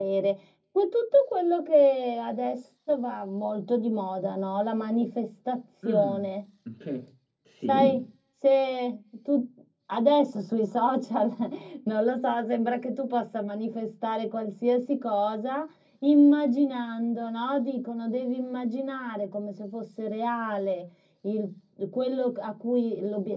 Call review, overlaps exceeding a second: none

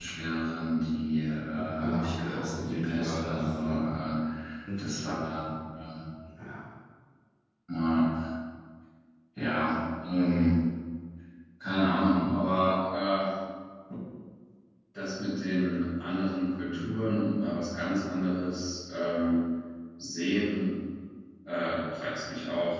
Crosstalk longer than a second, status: present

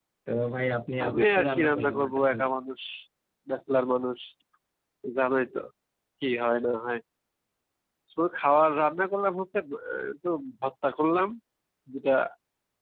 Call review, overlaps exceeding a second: present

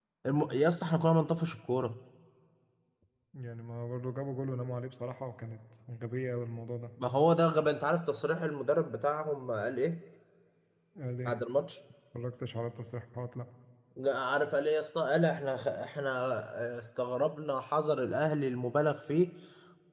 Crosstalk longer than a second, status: none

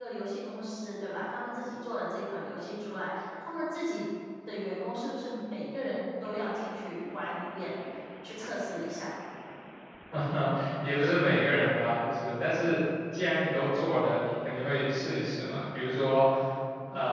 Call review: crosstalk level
none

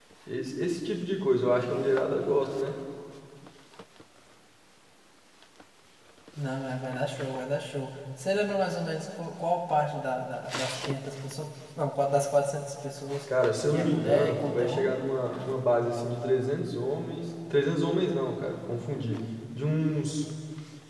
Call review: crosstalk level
present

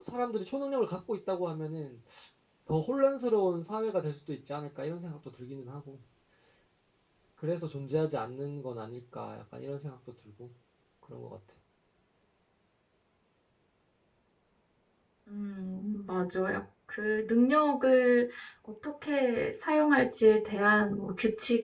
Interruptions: none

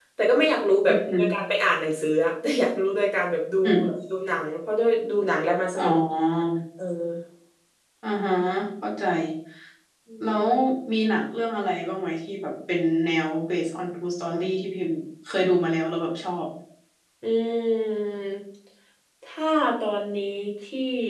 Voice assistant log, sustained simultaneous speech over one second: none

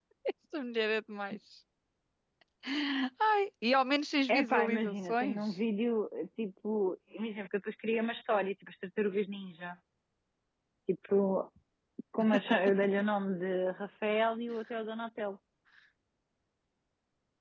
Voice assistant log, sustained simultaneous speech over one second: present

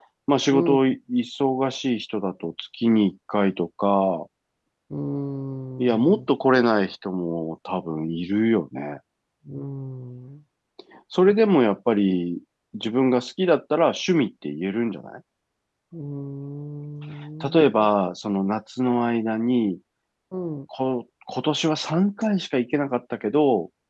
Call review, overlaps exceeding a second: none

